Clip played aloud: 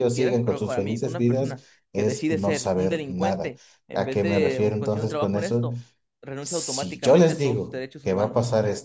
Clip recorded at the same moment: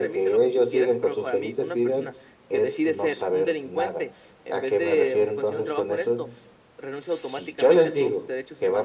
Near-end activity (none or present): none